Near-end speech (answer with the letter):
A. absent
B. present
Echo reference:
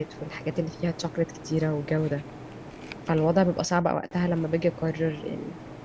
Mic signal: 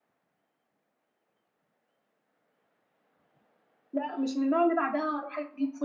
B